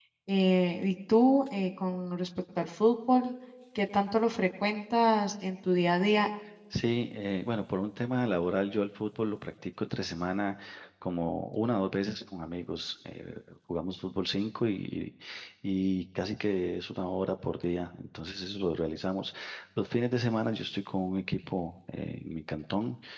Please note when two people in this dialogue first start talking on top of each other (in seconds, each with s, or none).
none